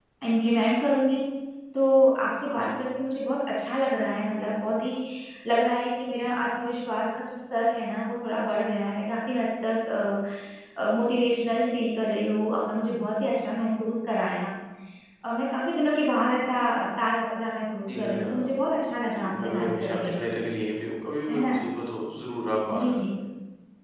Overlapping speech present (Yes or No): Yes